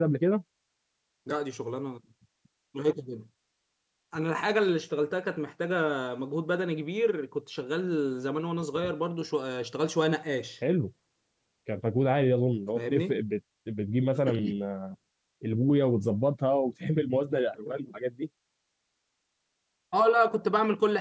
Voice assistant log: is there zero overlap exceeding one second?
Yes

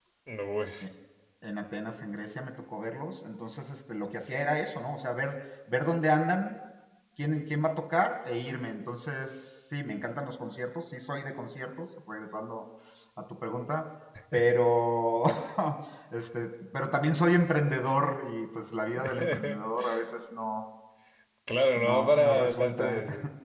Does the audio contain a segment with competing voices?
Yes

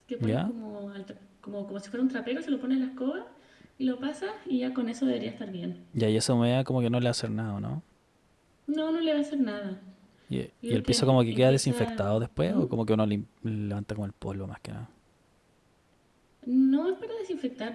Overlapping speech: Yes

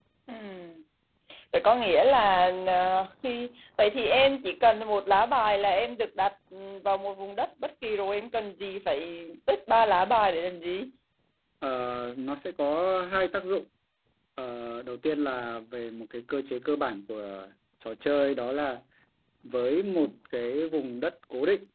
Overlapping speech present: No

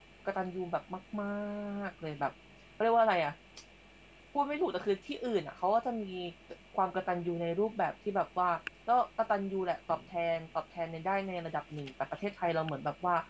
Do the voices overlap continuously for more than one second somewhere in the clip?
No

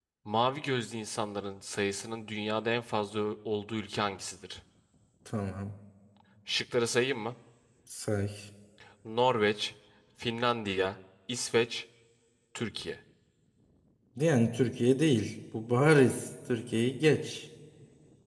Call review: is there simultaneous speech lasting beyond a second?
No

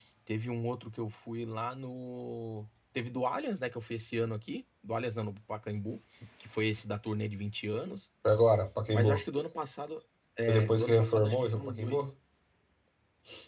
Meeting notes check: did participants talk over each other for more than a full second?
Yes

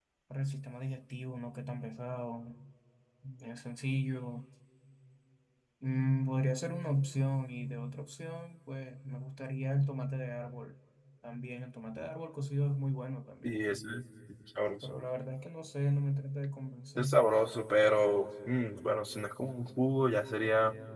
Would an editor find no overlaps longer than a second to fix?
Yes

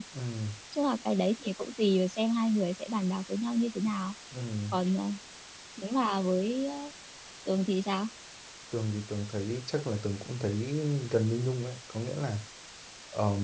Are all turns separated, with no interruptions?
Yes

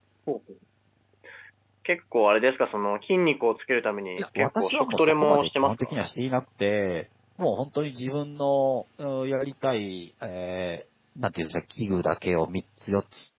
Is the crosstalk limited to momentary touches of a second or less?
No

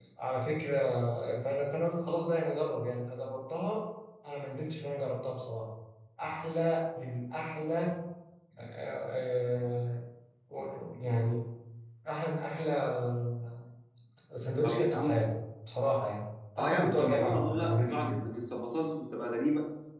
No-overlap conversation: No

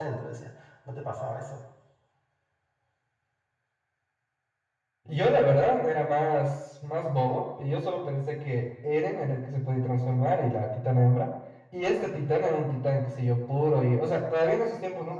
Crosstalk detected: No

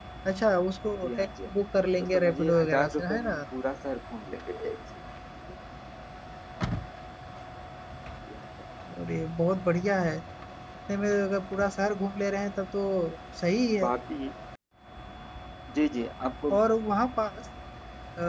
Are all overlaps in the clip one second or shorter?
No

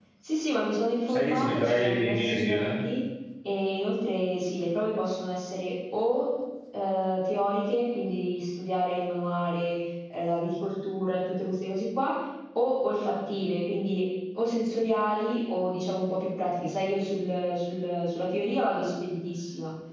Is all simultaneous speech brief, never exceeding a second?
No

